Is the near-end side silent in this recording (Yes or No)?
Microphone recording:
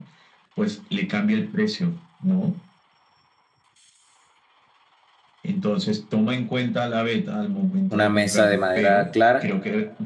No